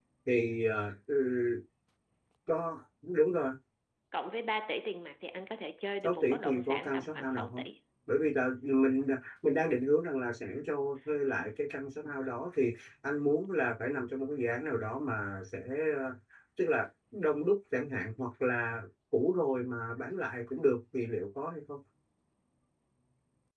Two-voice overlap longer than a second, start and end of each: 6.0-7.6

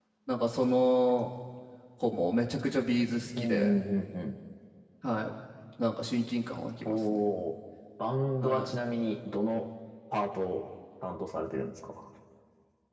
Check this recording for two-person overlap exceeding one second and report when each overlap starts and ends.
none

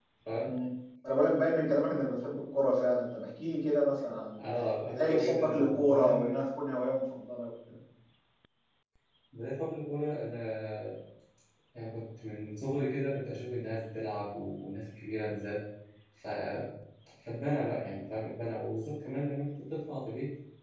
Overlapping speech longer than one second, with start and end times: 4.9-6.4

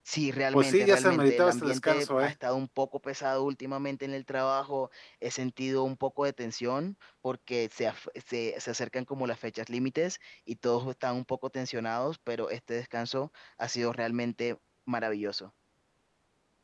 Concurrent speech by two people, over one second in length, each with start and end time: 0.5-2.3

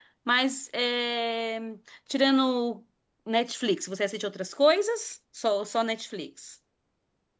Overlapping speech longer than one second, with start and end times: none

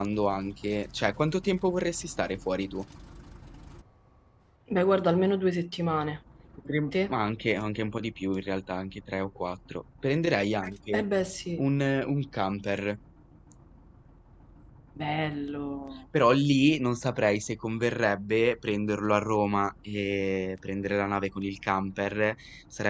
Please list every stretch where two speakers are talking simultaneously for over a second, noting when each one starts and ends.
none

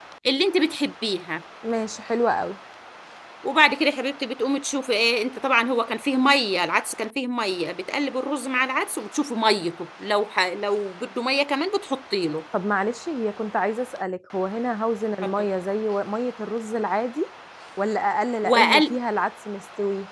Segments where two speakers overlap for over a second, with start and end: none

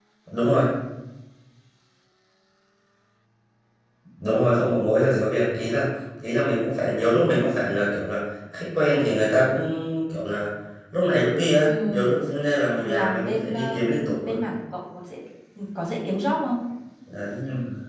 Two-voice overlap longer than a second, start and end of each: 12.8-14.4

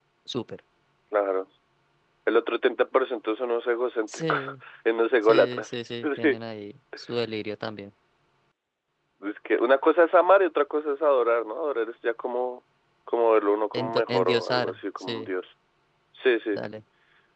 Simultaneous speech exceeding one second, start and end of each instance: 13.7-15.3

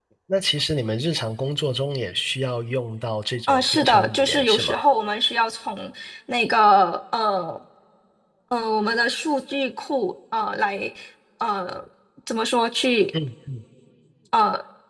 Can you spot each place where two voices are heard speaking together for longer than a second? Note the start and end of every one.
3.5-4.8

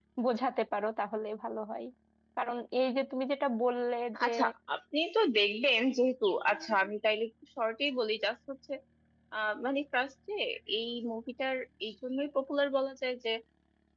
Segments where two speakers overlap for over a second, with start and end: none

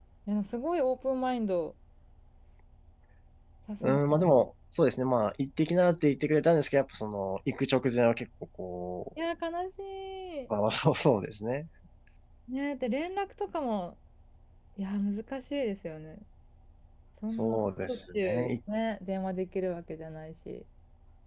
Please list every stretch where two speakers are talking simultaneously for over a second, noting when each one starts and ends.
17.3-18.5

